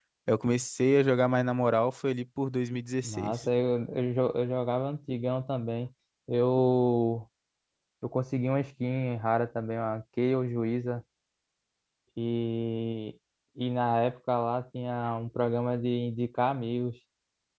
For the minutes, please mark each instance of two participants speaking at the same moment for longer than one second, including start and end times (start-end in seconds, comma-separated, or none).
none